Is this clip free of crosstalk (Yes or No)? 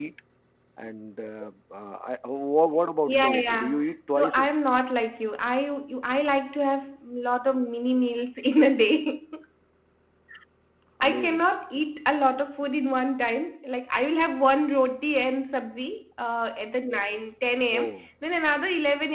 No